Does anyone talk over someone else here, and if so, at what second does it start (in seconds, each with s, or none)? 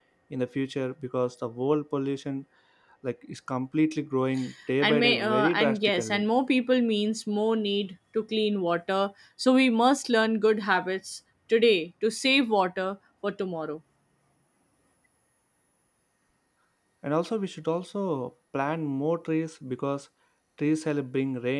4.8 s